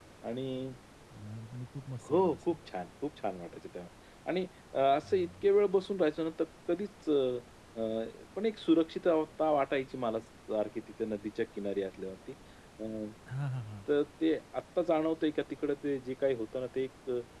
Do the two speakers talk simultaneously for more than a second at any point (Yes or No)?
No